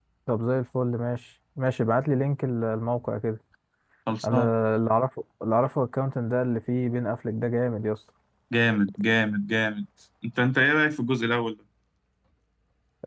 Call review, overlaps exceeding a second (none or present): none